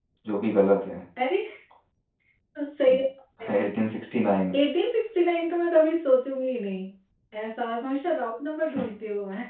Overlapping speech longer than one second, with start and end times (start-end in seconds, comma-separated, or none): none